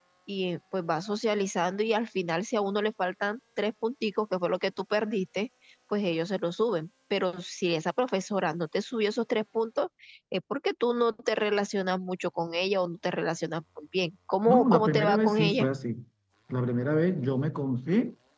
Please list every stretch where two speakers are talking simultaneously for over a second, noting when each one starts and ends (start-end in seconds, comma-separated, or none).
14.5-15.7